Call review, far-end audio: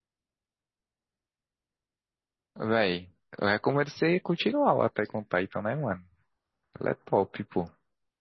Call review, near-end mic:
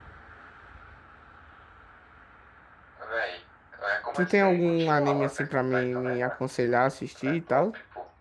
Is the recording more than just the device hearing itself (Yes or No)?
Yes